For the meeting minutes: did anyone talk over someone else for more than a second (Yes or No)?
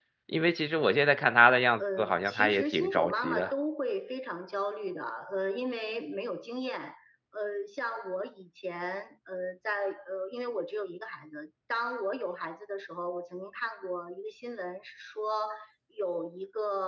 Yes